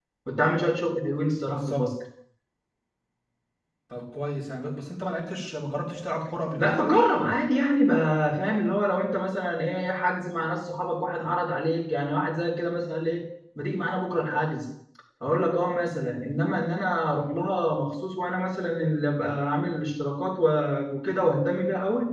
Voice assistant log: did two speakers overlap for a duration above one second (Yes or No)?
No